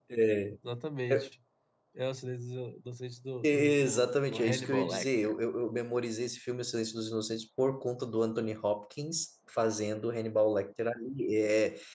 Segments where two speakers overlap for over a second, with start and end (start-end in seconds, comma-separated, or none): 3.4-5.3